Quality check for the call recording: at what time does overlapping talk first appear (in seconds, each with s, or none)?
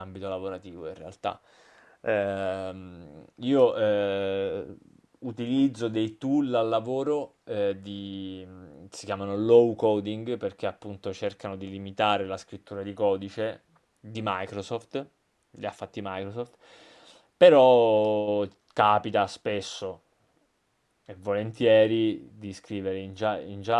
none